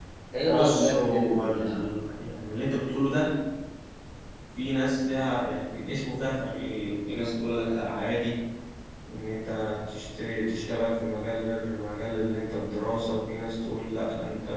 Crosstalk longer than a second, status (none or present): present